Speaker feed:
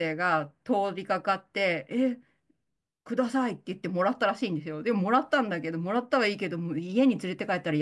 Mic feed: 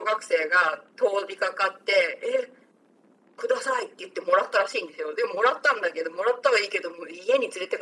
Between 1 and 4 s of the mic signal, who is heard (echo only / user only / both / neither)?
echo only